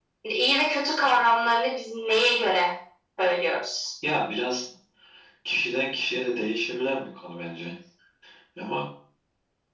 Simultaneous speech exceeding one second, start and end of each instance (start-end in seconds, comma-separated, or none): none